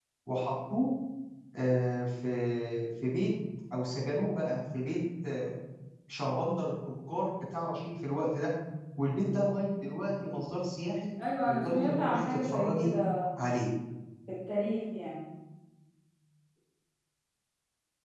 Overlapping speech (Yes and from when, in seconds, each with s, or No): Yes, from 11.5 s